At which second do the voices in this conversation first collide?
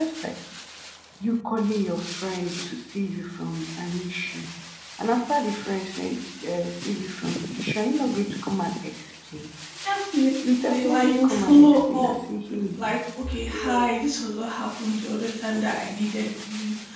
11 s

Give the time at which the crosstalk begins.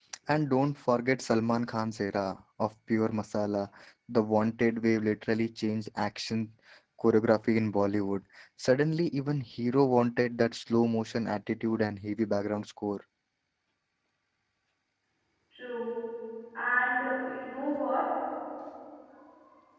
none

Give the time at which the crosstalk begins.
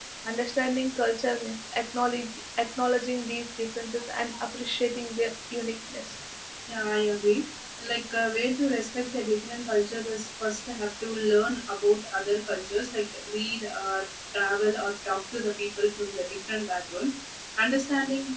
none

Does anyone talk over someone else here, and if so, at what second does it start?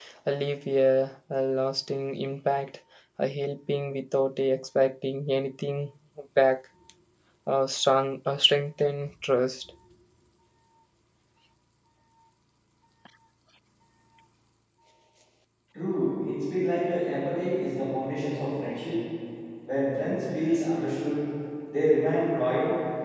none

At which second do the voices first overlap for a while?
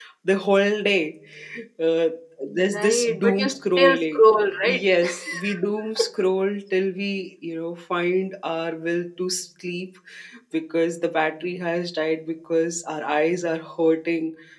3 s

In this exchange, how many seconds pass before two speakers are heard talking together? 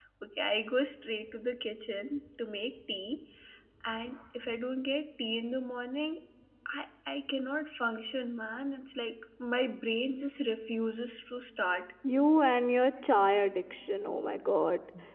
none

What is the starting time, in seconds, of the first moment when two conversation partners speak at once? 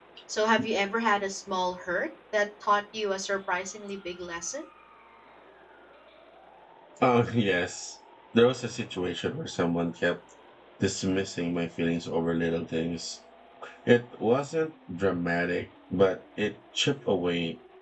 none

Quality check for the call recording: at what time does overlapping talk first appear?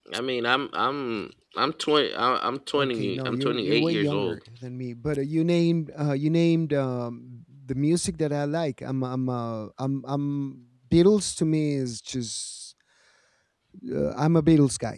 3 s

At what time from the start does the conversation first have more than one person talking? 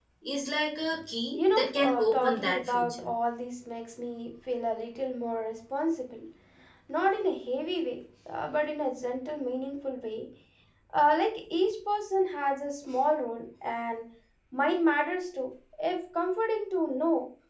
1 s

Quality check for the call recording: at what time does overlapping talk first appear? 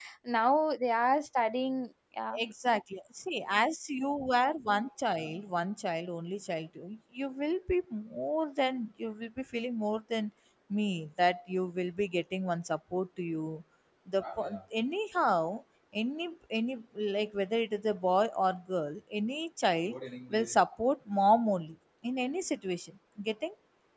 none

